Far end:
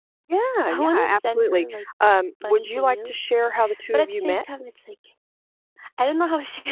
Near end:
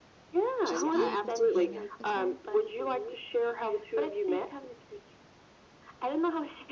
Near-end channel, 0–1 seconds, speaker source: both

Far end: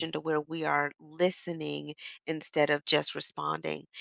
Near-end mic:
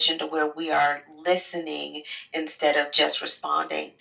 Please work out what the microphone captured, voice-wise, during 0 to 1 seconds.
echo only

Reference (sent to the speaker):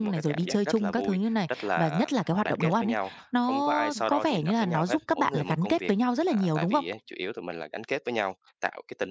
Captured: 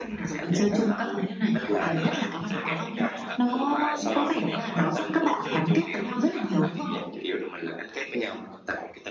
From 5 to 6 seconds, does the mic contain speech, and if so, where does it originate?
both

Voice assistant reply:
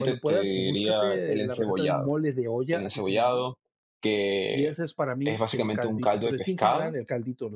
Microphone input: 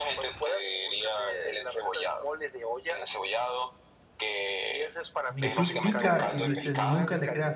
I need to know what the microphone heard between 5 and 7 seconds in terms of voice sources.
both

